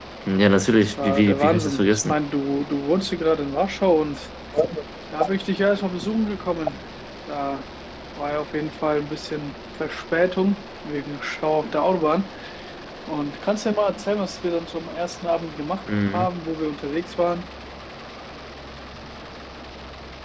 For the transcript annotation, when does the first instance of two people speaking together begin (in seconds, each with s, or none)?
0.8 s